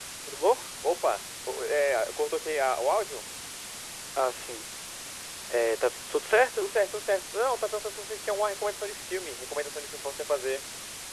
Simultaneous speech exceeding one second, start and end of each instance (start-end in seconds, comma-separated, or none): none